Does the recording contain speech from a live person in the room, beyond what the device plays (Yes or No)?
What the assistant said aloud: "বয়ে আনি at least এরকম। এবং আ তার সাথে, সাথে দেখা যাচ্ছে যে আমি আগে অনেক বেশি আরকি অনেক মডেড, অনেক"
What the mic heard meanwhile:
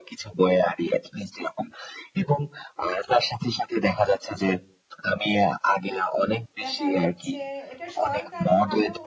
Yes